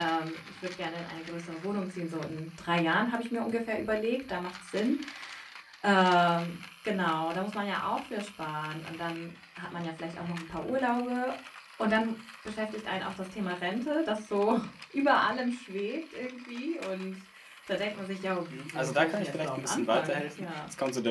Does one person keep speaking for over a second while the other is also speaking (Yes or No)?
Yes